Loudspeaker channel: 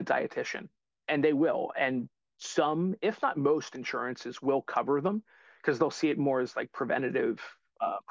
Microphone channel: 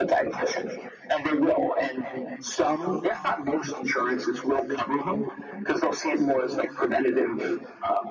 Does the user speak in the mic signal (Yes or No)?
No